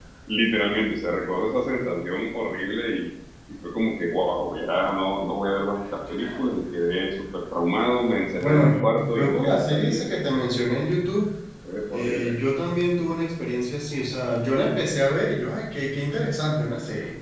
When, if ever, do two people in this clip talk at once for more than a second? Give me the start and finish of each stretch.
8.4-10.2

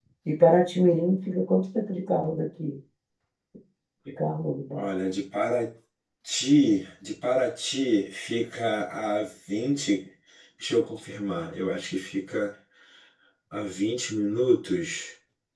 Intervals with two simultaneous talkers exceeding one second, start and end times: none

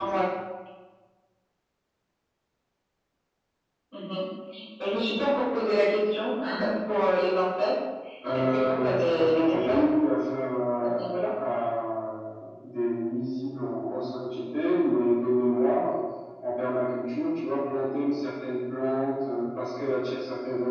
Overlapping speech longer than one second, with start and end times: 8.3-9.8

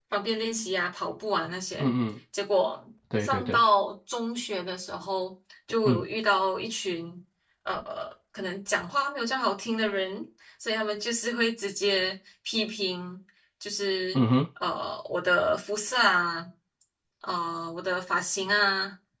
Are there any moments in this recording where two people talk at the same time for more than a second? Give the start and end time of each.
none

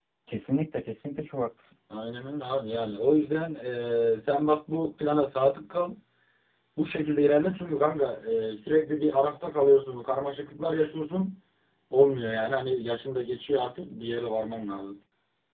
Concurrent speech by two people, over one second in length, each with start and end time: none

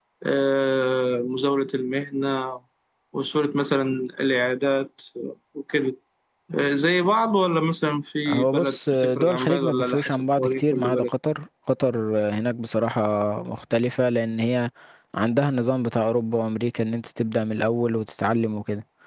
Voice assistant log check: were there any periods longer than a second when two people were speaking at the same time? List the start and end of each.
8.3-11.1

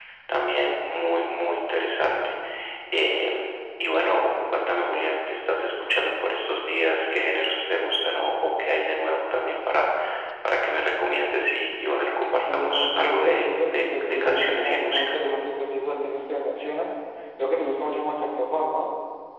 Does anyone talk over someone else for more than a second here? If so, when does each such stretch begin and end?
12.3-15.0

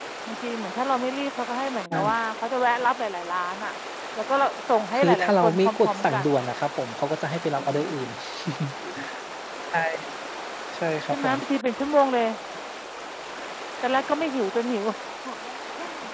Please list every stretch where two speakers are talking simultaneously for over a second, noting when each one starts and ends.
5.0-6.2

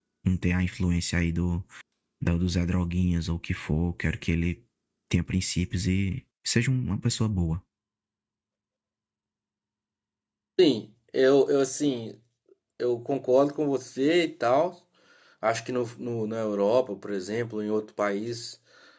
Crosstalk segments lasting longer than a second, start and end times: none

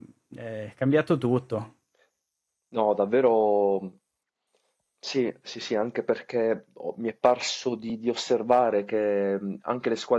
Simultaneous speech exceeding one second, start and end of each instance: none

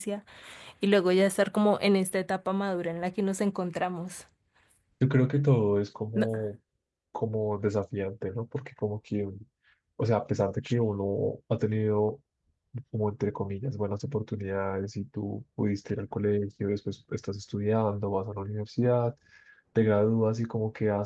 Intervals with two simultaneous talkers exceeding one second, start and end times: none

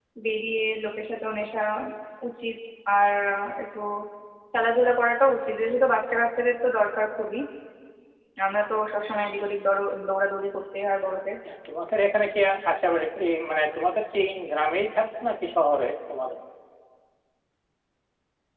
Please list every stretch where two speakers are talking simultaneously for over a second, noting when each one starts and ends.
none

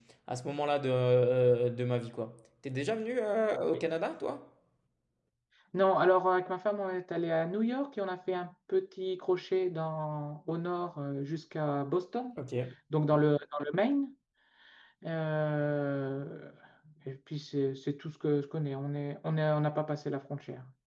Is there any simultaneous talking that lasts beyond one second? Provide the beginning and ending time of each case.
none

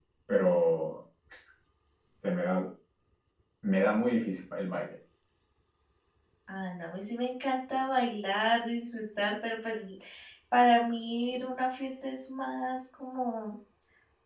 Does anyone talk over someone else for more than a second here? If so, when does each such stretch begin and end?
none

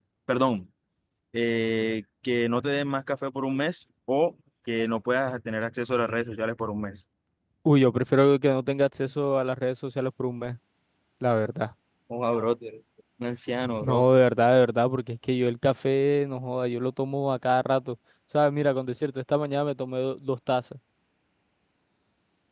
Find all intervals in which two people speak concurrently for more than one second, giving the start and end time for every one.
none

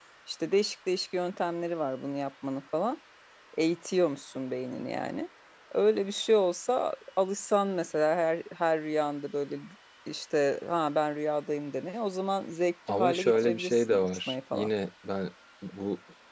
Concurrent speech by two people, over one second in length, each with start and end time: 12.9-14.7

